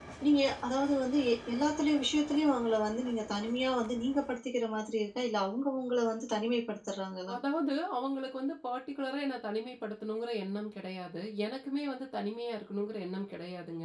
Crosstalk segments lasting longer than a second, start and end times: none

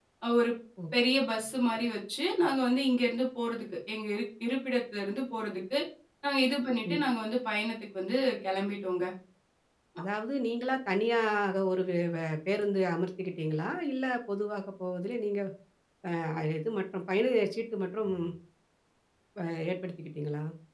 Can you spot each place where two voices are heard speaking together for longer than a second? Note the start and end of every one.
none

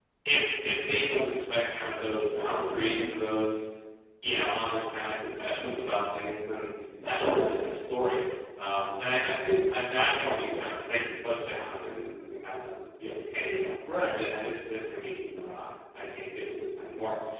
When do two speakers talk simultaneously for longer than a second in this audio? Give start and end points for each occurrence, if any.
none

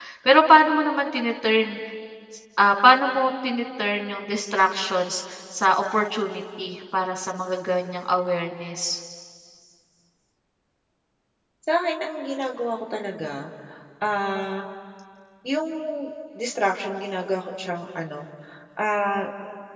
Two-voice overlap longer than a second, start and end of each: none

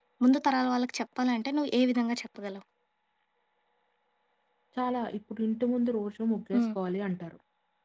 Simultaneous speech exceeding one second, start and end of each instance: none

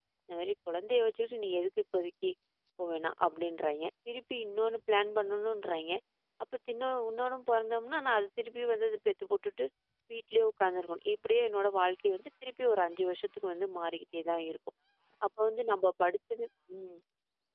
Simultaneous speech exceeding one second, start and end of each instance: none

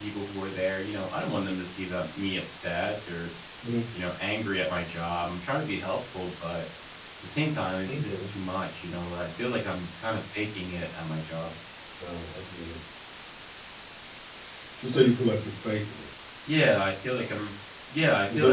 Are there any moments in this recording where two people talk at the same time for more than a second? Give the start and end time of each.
none

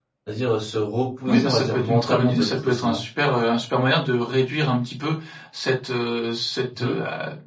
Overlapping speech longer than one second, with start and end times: 1.3-3.0

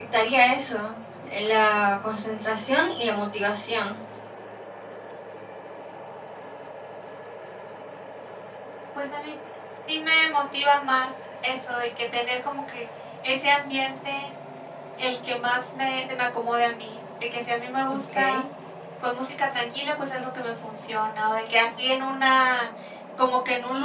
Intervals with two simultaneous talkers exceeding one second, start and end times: none

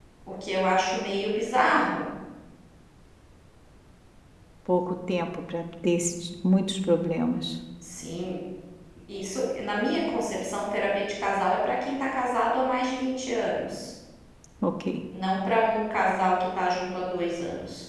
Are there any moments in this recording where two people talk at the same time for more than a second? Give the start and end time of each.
none

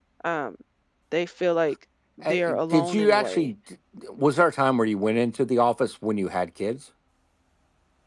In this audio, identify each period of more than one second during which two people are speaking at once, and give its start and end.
2.3-3.5

